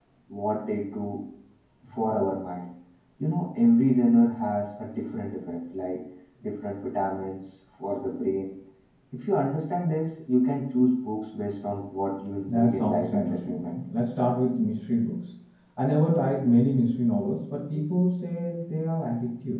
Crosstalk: present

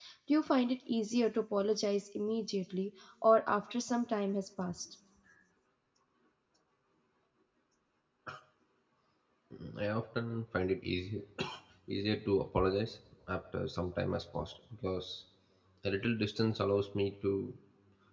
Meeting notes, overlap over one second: none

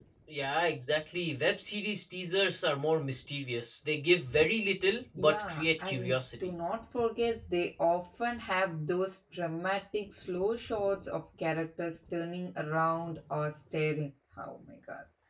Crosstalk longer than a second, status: present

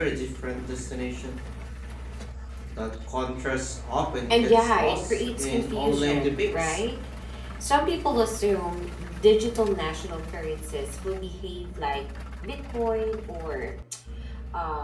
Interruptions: present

